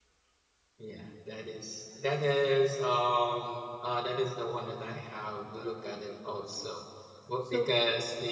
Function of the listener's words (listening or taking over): listening